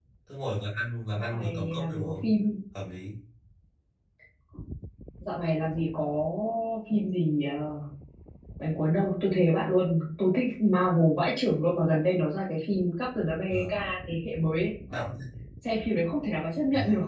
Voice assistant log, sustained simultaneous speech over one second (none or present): present